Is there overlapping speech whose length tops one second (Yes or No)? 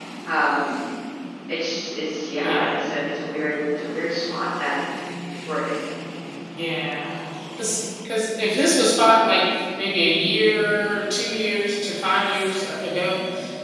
No